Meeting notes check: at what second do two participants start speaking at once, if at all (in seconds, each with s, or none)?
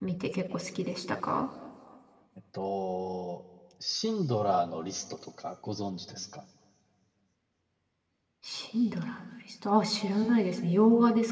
none